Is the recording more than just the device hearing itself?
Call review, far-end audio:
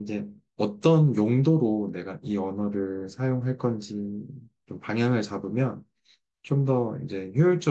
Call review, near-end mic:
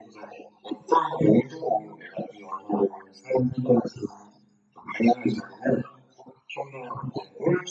No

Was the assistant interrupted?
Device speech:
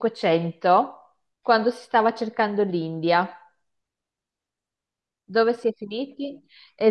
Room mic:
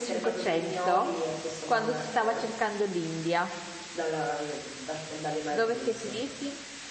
Yes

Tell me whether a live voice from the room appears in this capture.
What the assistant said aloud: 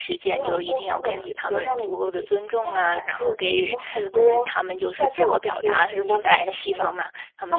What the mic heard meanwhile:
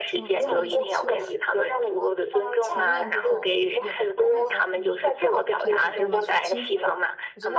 Yes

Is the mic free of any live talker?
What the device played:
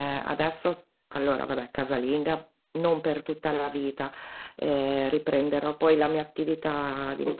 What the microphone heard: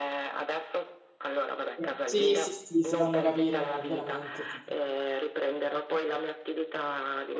No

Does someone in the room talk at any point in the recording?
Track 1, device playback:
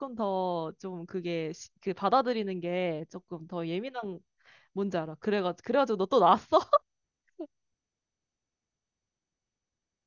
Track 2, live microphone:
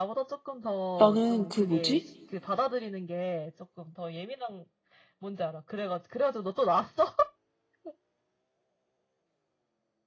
Yes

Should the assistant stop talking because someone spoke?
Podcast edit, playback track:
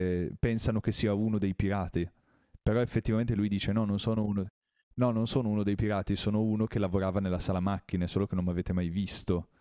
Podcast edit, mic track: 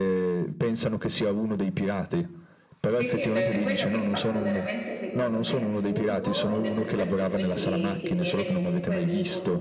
Yes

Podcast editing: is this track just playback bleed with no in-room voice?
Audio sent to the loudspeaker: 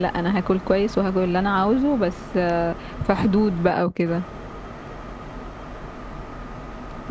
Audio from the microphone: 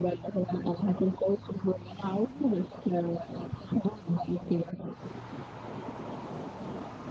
Yes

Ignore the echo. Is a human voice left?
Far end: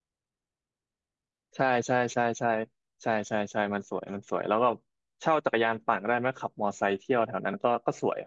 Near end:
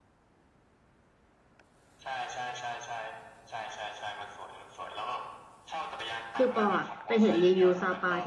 Yes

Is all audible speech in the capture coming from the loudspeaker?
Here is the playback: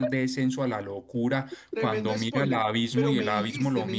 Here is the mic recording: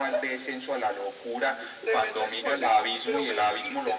Yes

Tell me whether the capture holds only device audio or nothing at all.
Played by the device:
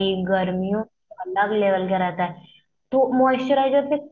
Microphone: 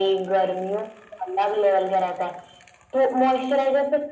Yes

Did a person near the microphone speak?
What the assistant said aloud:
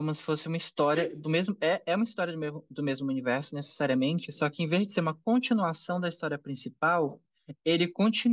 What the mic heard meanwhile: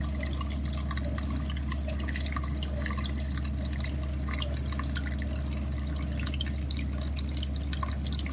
No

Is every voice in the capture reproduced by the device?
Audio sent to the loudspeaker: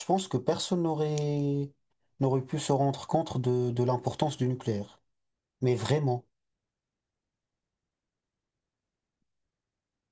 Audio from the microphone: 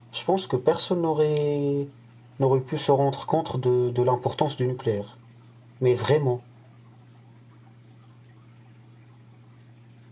Yes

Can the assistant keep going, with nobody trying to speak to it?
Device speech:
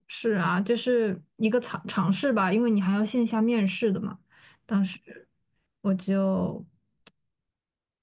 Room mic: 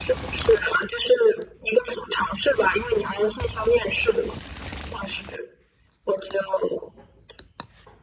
Yes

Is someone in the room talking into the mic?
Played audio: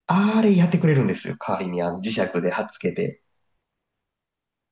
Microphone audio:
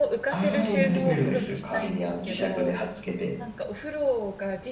Yes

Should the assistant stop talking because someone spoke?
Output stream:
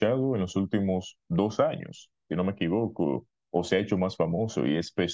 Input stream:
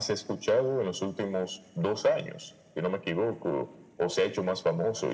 No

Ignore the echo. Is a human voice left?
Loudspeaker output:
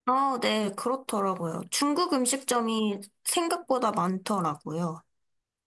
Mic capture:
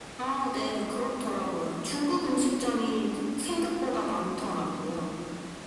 No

